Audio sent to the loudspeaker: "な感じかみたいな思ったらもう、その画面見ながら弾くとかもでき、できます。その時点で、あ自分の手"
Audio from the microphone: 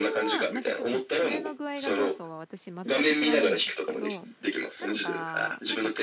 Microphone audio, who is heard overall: both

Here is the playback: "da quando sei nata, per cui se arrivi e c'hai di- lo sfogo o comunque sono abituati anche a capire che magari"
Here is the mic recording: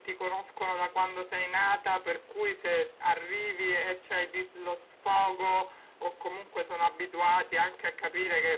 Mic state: echo only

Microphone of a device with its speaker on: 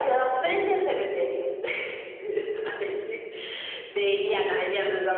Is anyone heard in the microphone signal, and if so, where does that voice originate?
echo only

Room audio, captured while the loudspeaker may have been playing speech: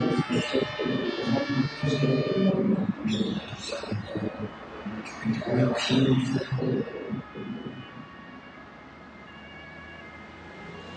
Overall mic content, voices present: echo only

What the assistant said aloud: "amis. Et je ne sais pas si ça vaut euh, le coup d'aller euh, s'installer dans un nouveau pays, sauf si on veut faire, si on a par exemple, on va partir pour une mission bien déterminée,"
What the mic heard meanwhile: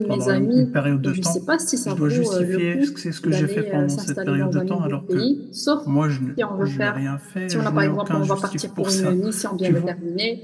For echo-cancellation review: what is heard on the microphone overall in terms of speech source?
both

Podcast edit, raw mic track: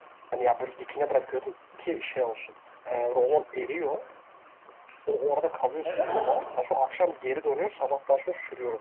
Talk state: both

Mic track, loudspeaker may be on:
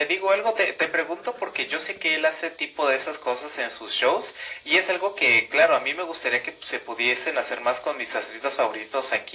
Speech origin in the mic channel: echo only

